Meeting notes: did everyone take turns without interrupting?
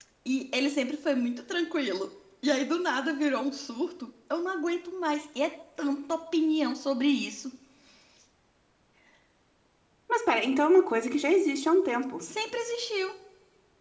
Yes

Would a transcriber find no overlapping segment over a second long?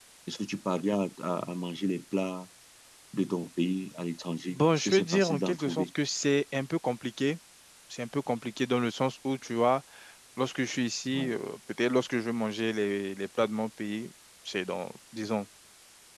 No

